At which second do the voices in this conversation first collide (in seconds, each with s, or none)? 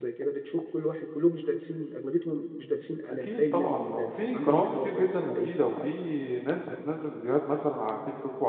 3.1 s